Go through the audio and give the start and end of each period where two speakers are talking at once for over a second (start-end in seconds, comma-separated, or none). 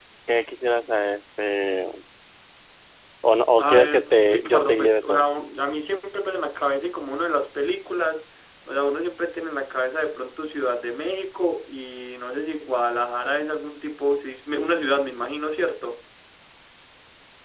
3.5-5.2